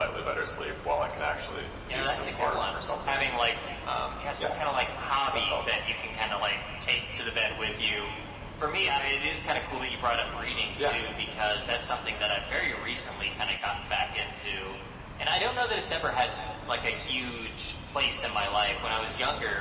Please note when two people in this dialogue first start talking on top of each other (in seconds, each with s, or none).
1.9 s